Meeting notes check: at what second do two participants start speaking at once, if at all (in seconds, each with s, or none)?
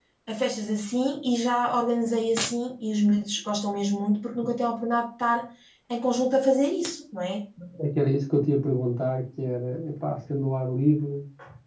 none